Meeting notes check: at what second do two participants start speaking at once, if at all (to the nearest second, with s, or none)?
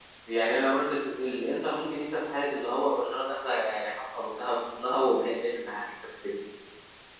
none